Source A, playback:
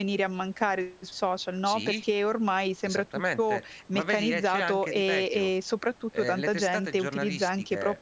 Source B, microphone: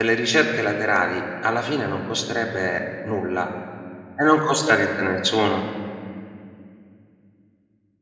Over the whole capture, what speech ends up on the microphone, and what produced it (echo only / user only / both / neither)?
user only